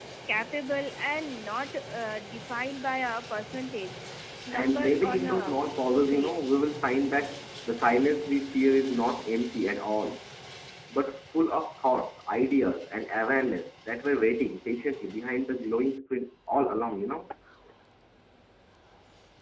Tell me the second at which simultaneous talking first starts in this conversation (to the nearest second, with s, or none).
5 s